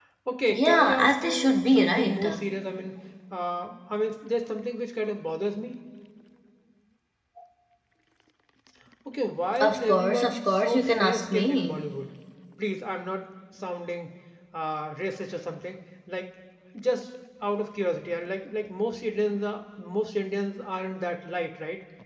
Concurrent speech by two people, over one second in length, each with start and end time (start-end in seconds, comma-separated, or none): 0.5-2.2, 9.6-11.8